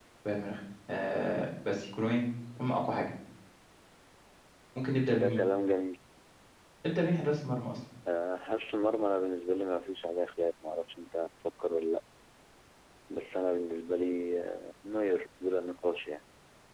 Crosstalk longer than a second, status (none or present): none